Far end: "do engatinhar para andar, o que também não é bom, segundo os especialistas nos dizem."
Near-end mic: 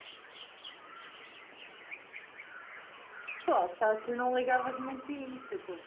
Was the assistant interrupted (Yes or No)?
Yes